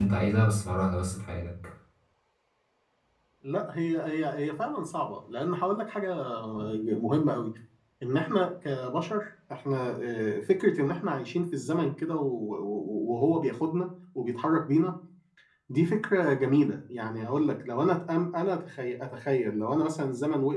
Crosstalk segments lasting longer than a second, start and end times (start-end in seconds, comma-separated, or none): none